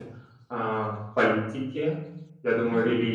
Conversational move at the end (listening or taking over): listening